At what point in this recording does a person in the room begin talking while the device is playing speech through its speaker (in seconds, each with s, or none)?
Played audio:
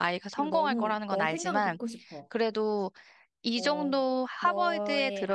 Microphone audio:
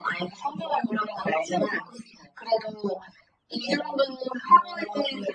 none